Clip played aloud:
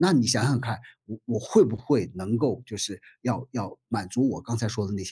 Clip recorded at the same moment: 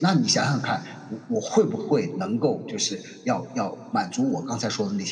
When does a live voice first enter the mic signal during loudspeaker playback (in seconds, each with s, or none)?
none